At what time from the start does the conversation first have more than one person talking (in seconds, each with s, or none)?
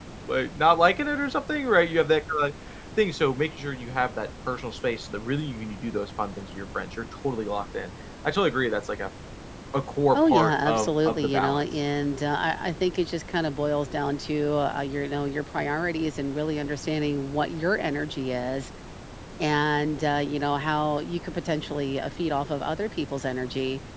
10.1 s